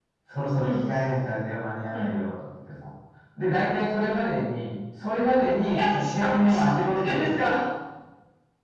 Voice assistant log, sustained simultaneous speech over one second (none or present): present